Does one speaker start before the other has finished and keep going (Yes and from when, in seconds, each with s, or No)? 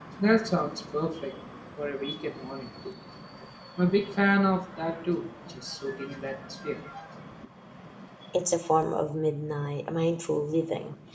No